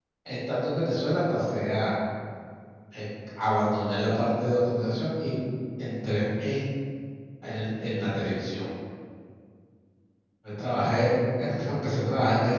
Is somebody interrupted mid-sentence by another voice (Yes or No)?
No